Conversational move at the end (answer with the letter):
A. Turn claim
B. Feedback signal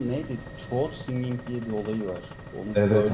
A